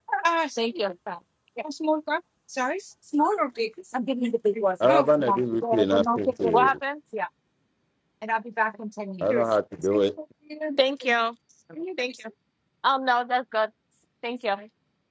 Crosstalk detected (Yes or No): Yes